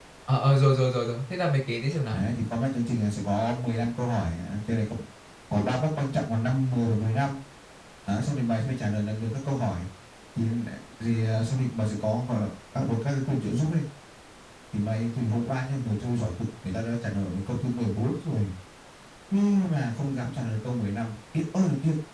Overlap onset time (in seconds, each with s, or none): none